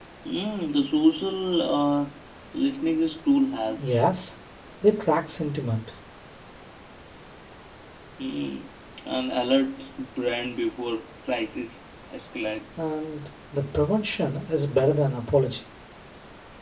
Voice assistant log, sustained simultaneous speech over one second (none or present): none